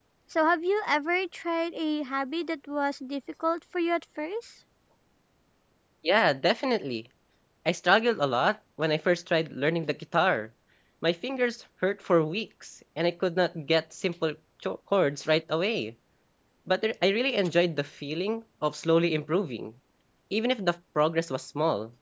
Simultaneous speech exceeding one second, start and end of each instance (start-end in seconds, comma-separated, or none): none